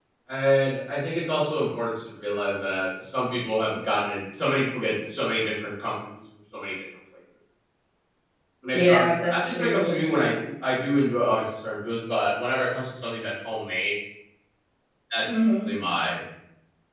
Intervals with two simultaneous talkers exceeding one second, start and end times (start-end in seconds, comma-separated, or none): 8.7-10.0